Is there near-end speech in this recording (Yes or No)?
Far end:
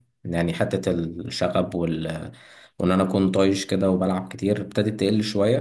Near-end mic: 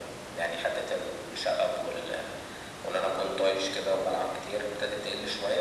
No